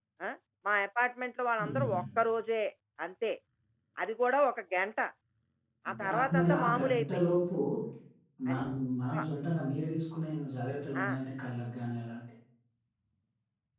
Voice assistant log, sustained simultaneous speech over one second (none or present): present